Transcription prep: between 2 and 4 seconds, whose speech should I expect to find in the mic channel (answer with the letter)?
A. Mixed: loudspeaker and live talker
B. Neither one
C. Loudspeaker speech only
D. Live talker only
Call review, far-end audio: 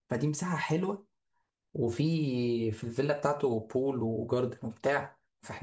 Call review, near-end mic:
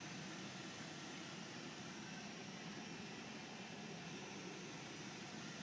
B